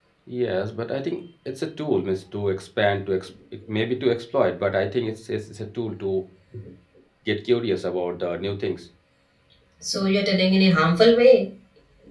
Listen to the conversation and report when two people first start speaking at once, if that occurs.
none

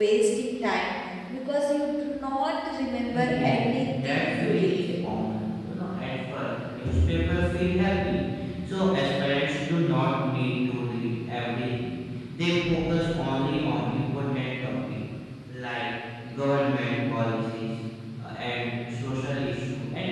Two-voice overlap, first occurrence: 3.1 s

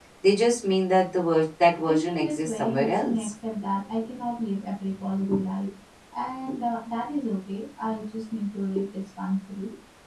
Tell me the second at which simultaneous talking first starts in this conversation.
1.9 s

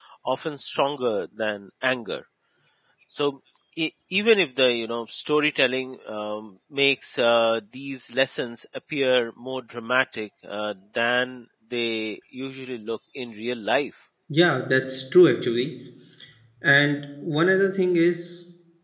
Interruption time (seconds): none

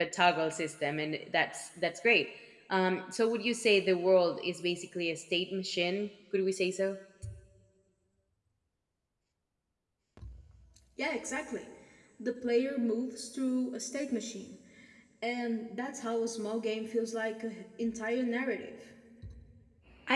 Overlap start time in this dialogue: none

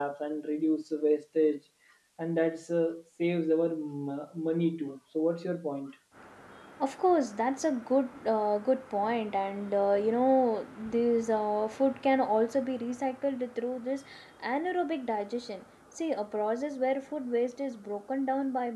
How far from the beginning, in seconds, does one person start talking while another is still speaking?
none

